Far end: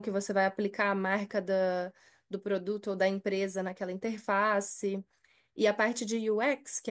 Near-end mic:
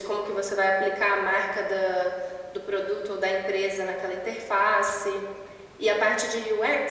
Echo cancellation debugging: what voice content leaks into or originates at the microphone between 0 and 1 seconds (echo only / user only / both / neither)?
echo only